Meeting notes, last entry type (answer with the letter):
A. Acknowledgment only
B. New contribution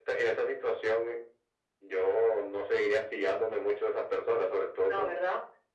A